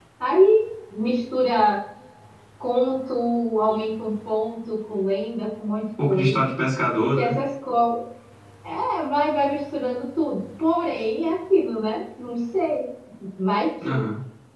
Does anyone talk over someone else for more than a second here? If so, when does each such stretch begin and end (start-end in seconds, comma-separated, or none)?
none